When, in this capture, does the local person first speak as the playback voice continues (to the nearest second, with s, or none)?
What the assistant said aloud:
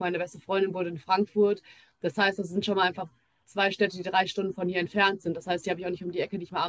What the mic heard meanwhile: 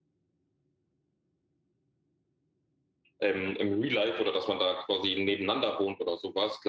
3 s